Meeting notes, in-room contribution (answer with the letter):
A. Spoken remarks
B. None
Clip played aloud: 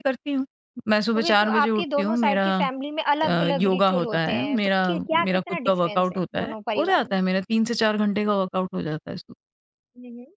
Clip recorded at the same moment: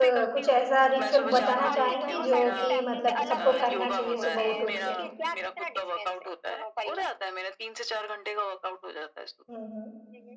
A